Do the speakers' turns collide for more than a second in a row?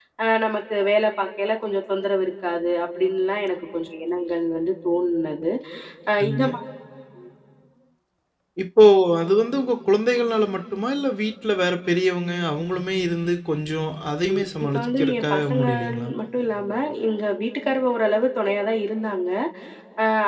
Yes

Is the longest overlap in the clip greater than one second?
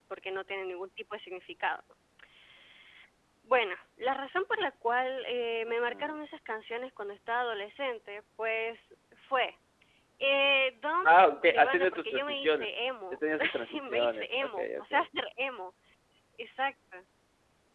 Yes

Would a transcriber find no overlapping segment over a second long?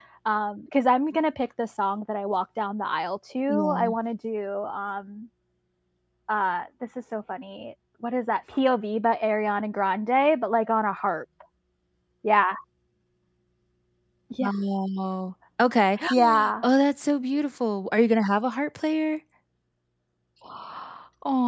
Yes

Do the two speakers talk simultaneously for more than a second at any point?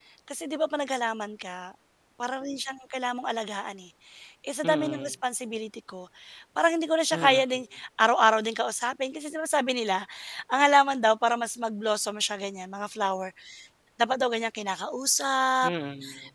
No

